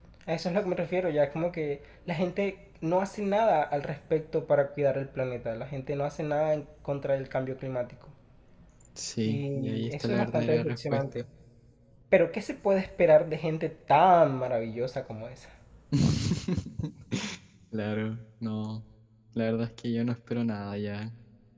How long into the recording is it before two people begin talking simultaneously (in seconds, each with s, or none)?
9.2 s